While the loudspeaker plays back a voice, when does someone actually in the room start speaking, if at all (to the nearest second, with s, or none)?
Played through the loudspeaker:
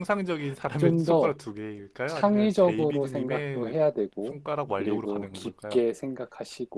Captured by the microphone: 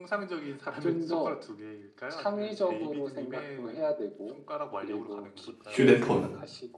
6 s